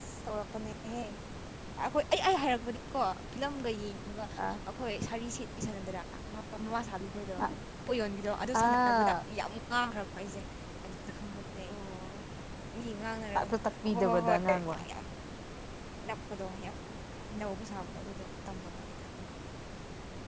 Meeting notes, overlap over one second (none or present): present